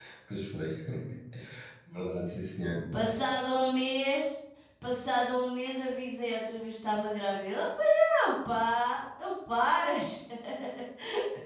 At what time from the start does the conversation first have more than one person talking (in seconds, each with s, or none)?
none